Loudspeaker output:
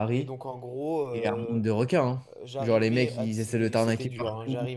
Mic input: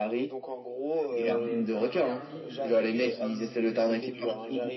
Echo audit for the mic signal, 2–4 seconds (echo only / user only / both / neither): both